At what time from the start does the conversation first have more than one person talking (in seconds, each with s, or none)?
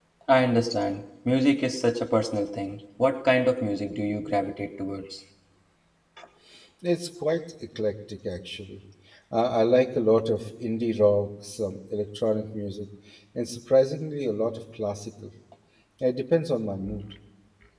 none